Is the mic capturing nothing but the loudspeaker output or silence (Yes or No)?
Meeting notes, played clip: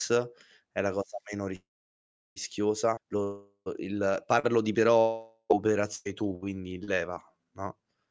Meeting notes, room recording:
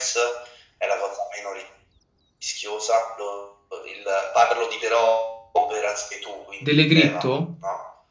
No